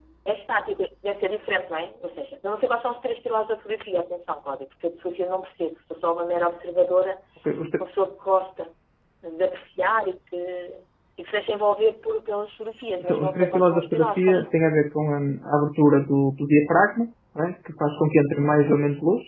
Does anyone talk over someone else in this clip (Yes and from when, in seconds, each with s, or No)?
Yes, from 13.1 s